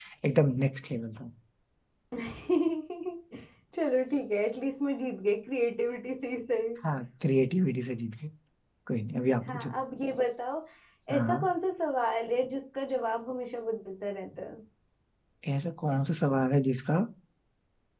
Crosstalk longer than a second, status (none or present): none